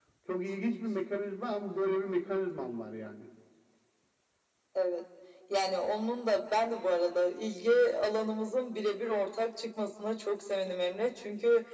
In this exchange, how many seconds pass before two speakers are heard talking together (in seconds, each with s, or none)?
none